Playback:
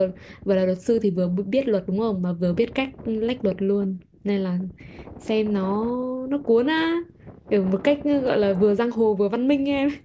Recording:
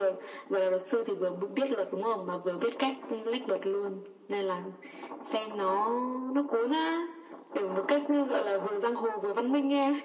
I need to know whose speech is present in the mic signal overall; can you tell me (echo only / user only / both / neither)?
echo only